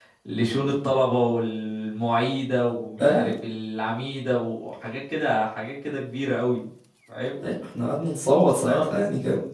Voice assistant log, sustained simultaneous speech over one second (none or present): none